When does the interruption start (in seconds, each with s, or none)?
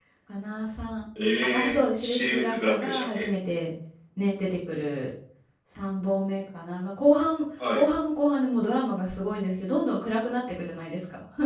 1.5 s